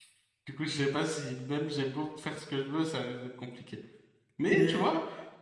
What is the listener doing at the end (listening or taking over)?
listening